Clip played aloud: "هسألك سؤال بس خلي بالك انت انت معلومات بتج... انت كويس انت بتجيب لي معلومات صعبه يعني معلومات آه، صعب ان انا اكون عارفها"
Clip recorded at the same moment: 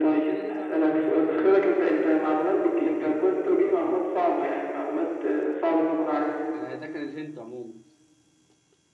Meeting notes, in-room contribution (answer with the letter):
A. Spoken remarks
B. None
A